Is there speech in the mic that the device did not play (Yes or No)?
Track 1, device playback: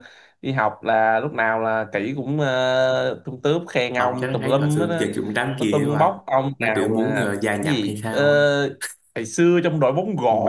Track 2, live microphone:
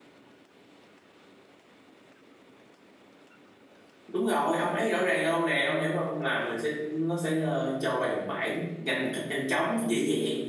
Yes